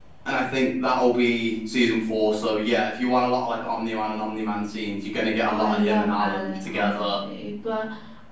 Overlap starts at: 5 s

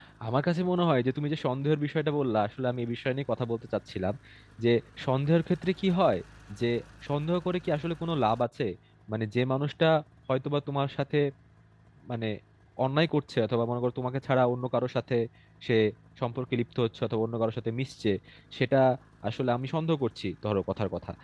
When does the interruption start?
none

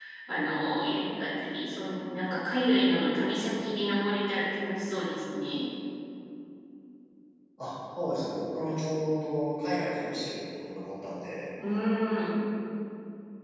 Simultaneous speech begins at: none

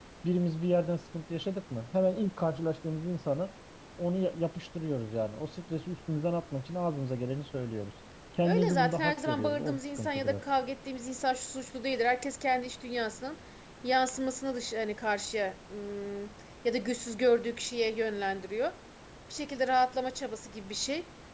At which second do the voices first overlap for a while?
8 s

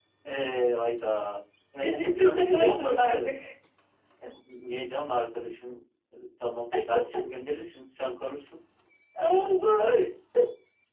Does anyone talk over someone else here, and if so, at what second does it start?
2 s

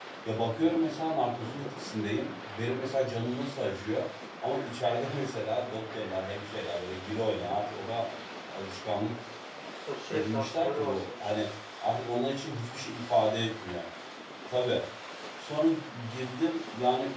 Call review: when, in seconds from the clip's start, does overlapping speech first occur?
10 s

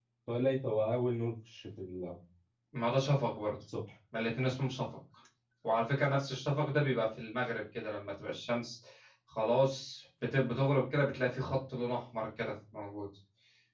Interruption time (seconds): none

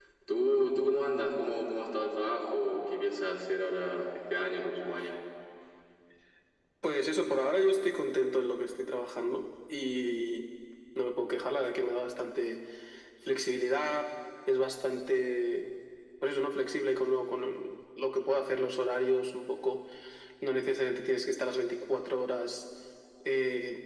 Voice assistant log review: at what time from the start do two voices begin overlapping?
none

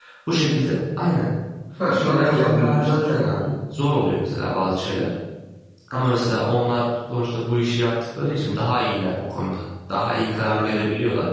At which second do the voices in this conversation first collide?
2 s

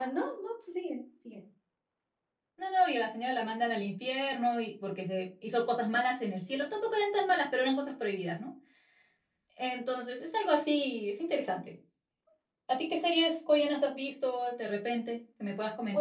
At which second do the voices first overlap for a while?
none

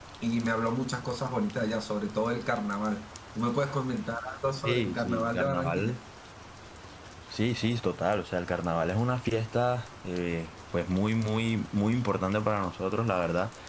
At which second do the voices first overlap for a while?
5 s

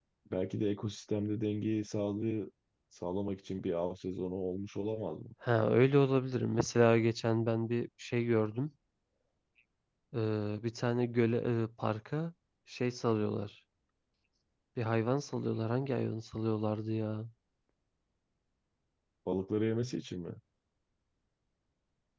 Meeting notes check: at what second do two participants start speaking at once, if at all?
none

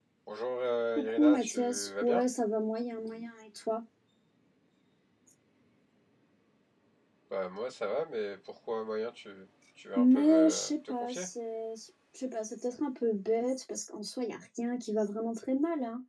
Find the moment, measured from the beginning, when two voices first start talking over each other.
1 s

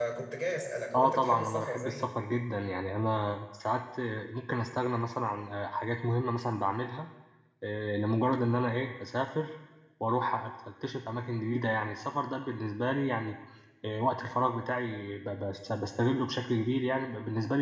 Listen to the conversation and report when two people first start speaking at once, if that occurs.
1 s

